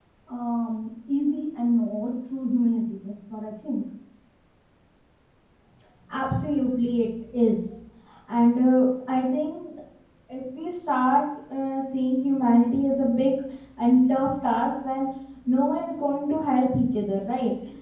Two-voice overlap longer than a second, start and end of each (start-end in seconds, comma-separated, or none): none